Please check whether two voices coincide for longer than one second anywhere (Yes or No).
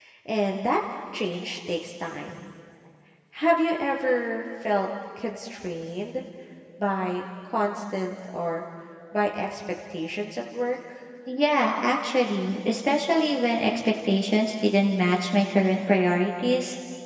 No